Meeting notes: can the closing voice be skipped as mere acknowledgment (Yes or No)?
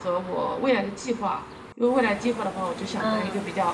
Yes